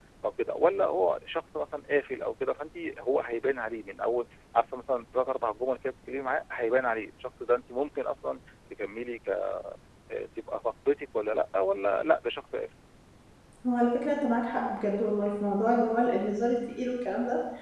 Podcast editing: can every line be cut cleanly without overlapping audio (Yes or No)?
Yes